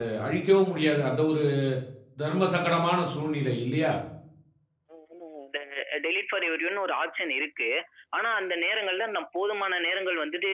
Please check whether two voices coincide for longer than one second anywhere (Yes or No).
No